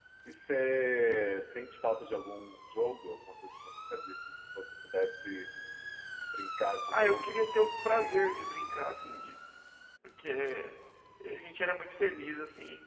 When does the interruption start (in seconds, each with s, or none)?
6.9 s